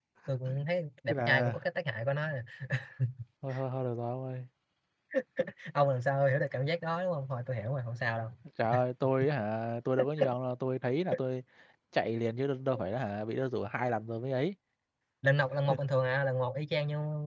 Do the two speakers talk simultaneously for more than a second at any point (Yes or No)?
No